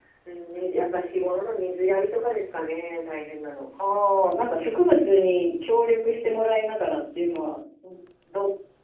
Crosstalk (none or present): none